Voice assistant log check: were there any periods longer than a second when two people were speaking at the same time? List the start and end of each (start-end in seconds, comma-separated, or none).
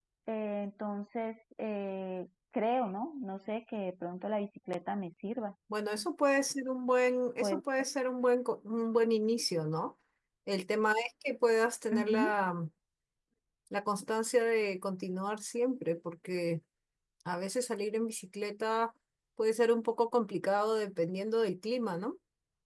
none